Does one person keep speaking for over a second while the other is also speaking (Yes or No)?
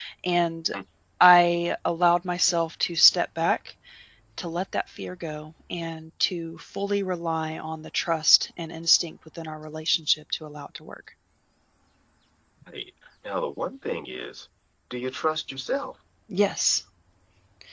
No